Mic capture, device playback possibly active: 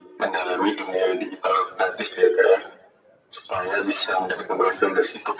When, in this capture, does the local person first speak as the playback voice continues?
none

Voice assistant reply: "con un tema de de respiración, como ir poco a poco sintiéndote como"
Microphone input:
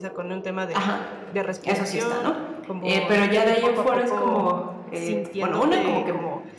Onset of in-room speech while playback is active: 0.7 s

